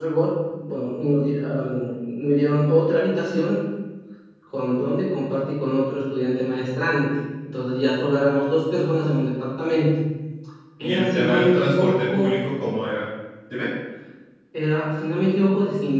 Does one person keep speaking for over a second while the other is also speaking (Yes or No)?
Yes